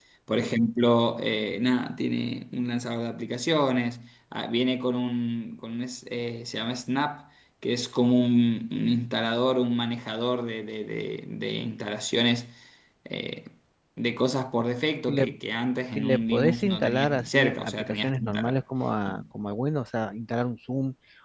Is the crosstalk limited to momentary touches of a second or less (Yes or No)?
No